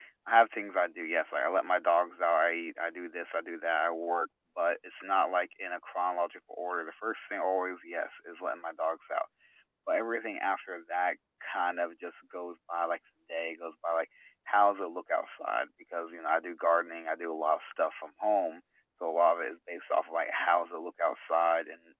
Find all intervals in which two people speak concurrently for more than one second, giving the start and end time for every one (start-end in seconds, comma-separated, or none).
none